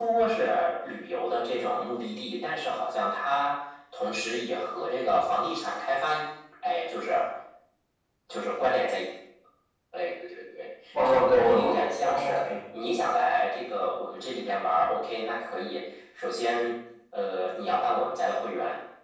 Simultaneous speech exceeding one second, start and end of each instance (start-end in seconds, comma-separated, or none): 11.1-12.4